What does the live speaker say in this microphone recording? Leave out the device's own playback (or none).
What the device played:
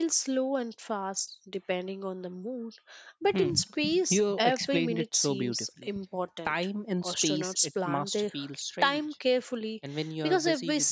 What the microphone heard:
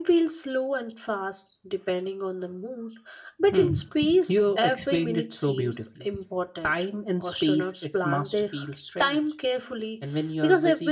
none